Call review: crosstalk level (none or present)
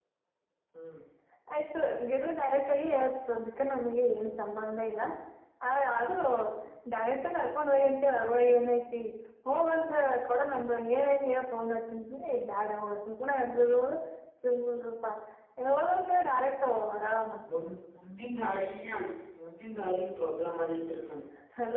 none